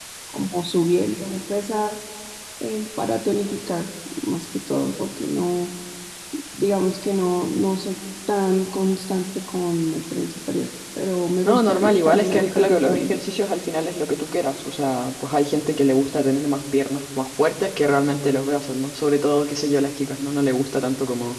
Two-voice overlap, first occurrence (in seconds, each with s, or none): 11.4 s